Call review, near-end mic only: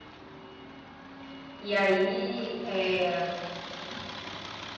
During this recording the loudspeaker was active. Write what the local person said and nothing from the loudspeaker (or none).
E aí, é,